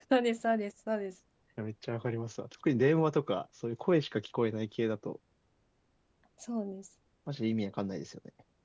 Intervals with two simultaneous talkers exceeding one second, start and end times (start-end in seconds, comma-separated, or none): none